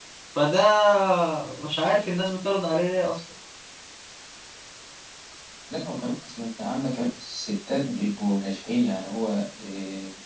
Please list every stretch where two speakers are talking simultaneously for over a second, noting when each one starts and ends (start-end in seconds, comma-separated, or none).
none